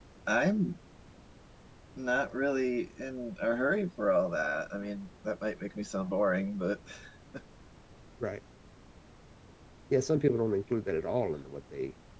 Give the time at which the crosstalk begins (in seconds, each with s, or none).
none